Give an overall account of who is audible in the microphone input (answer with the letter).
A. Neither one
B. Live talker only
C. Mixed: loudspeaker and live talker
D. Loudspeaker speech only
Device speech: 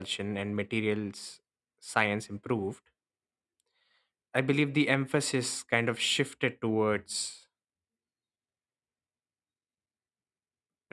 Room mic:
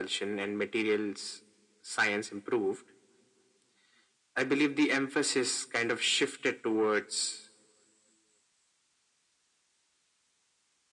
D